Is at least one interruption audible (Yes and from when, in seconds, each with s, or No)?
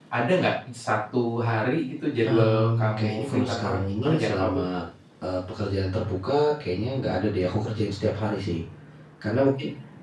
Yes, from 2.2 s